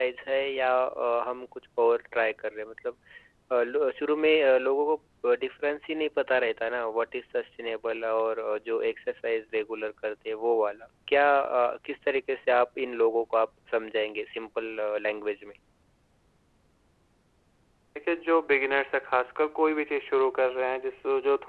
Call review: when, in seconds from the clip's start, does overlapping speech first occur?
none

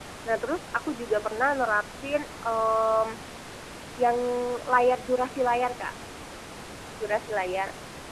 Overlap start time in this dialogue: none

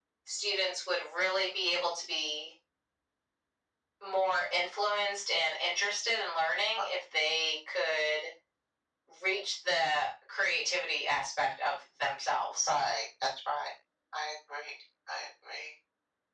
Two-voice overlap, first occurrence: none

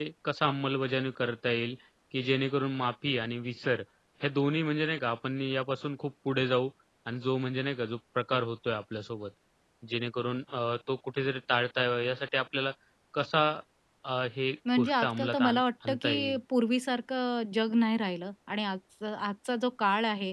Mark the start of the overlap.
14.8 s

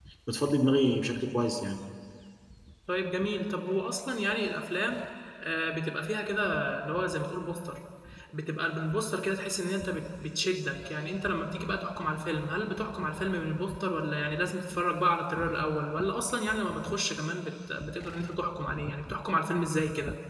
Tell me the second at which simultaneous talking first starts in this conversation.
none

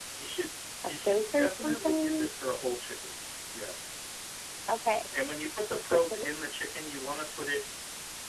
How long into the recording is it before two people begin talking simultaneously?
0.8 s

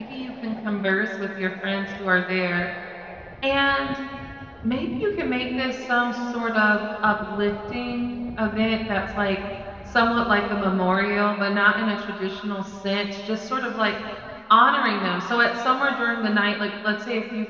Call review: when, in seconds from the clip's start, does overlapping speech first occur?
none

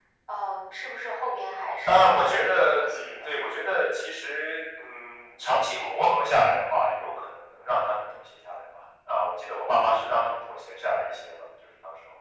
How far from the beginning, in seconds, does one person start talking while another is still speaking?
1.9 s

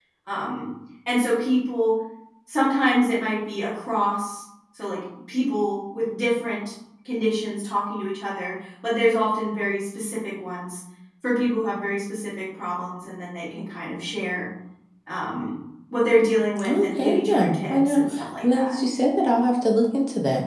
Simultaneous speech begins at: 16.7 s

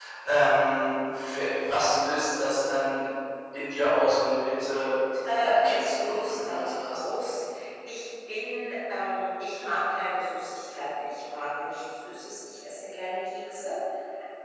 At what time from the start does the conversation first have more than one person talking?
5.2 s

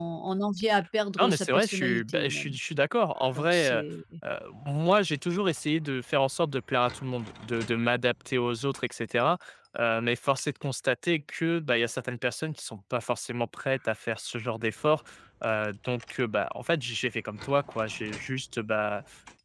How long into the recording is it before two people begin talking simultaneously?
1.2 s

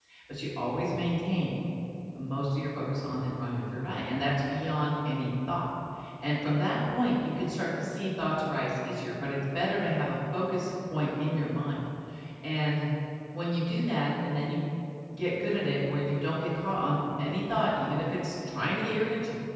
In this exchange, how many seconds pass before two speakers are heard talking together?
none

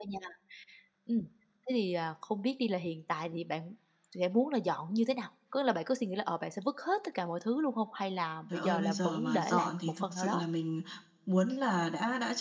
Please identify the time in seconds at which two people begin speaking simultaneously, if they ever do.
8.5 s

